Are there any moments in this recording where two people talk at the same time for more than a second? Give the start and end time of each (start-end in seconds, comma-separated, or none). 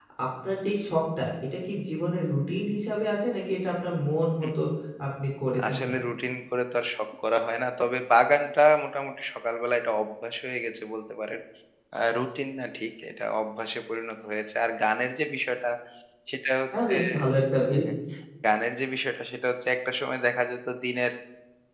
none